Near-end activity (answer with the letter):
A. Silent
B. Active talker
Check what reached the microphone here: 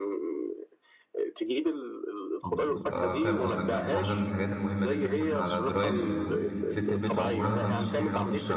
B